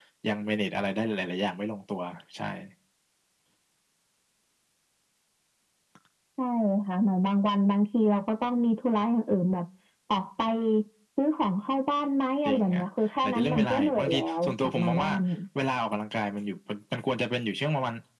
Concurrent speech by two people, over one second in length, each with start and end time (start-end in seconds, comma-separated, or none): 13.2-15.1